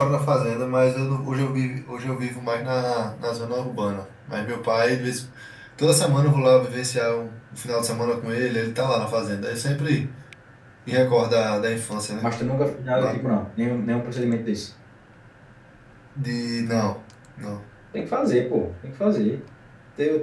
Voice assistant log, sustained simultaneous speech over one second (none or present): none